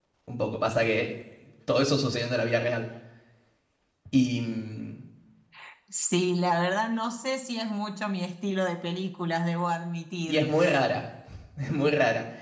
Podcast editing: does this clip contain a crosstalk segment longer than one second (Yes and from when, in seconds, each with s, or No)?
No